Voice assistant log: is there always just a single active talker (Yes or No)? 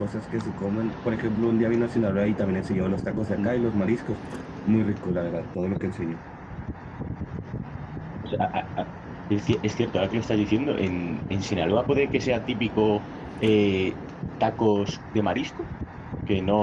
Yes